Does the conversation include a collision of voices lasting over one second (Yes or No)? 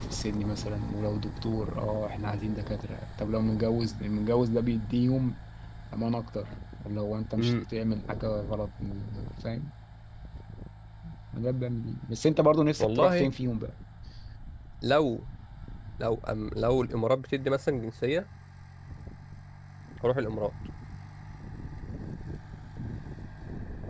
No